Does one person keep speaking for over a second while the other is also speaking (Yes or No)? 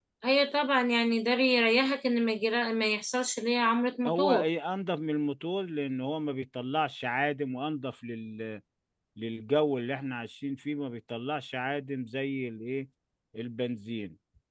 No